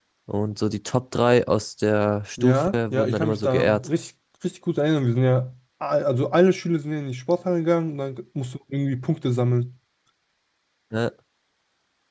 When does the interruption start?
2.4 s

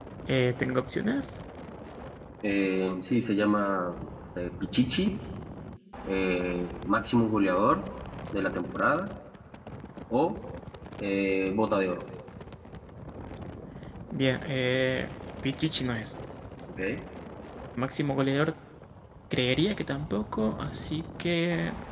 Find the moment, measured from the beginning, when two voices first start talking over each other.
none

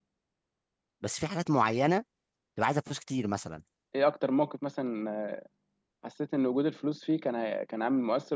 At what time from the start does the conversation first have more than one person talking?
none

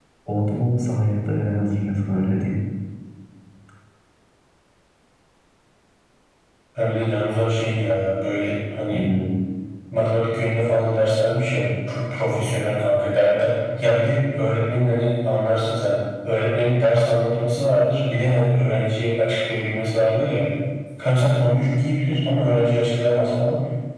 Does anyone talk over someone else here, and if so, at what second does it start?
none

